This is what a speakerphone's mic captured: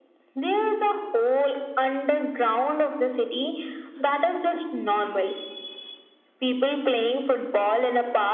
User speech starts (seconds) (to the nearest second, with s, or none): none